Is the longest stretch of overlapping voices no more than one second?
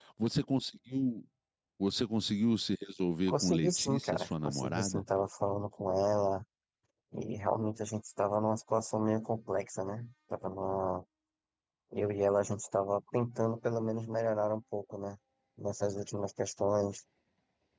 No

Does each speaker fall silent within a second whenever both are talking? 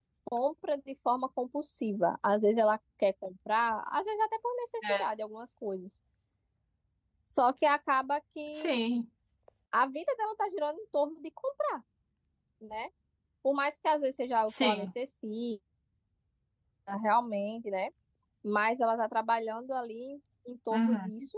Yes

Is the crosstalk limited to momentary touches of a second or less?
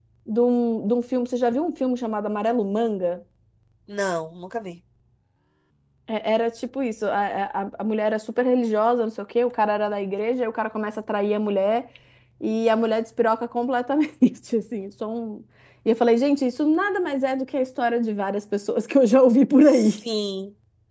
Yes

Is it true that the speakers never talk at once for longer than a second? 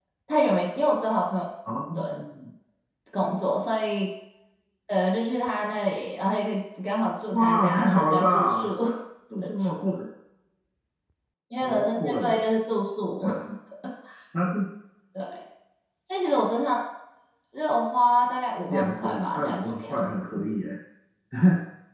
No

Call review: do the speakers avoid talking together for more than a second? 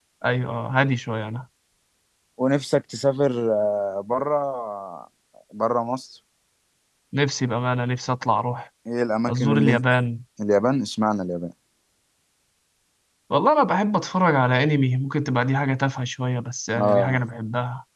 Yes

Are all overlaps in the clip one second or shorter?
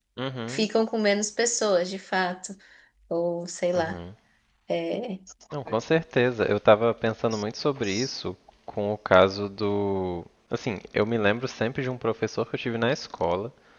Yes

